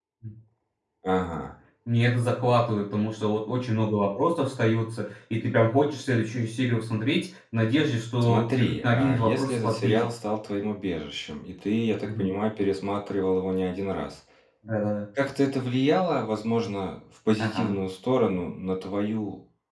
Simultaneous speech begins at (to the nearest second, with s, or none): 8 s